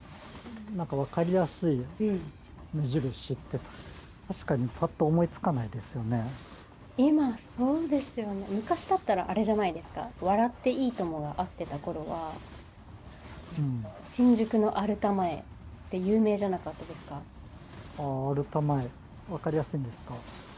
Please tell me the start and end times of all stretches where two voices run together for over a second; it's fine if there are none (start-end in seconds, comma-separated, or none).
none